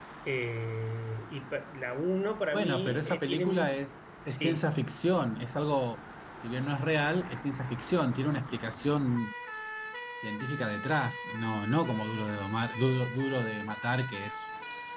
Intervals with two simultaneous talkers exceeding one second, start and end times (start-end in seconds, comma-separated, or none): 2.5-3.8